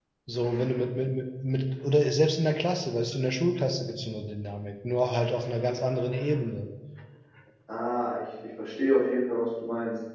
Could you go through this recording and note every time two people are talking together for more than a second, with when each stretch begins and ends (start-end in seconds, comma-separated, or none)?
none